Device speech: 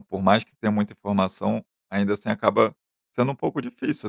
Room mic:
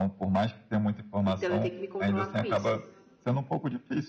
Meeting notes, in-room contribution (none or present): present